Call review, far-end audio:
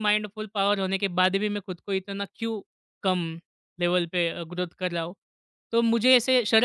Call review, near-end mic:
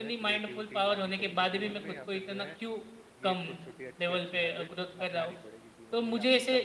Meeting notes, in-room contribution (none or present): present